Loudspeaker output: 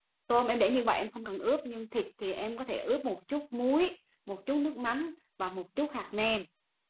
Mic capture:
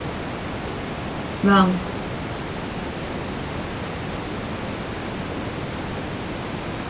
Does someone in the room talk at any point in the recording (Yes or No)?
Yes